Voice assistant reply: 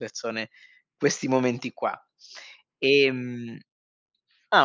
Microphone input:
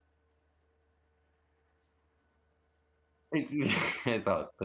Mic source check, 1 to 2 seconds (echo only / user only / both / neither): neither